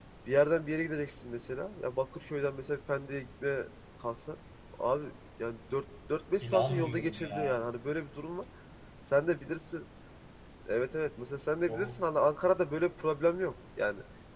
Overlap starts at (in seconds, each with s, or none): 6.4 s